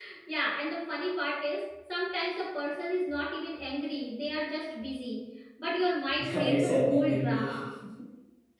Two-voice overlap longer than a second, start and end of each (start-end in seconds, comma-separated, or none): 6.2-7.6